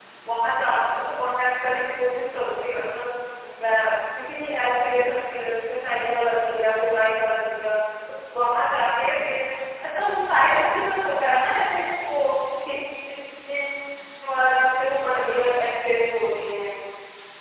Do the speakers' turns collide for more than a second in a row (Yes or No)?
No